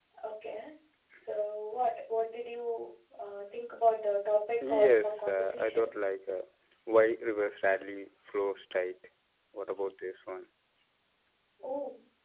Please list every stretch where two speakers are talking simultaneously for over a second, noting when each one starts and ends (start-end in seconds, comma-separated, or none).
4.7-5.9